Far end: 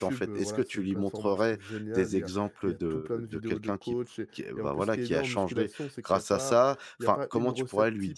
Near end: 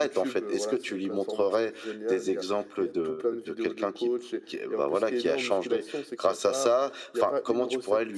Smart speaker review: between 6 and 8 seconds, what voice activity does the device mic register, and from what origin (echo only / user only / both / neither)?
echo only